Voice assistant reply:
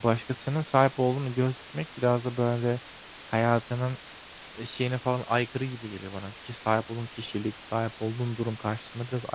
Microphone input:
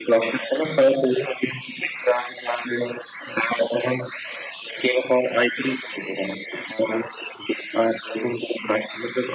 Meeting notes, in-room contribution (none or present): none